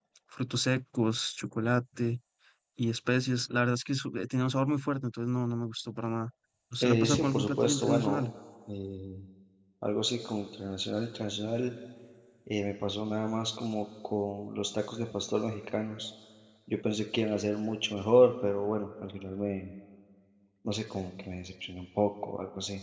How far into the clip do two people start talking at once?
7 s

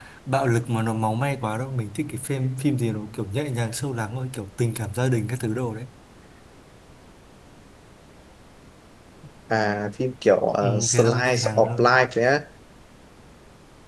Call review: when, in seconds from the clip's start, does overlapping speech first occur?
11 s

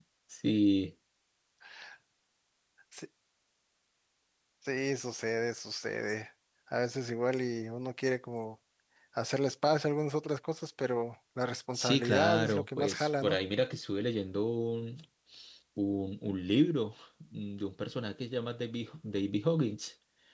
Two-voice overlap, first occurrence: 12 s

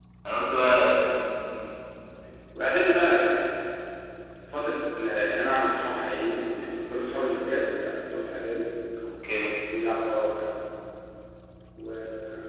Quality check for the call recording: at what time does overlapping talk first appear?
none

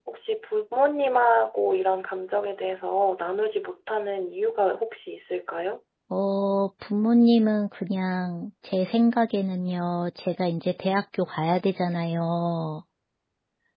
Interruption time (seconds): none

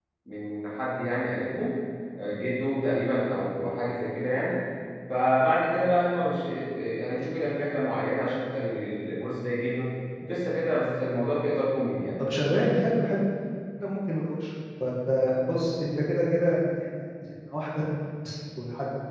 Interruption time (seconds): none

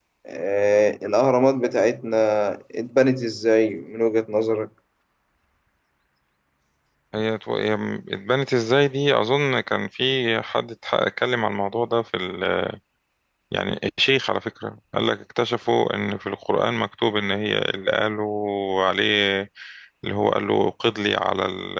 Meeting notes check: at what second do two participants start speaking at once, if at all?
none

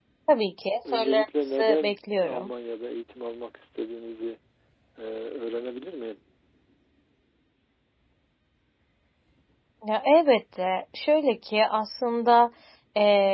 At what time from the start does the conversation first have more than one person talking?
1 s

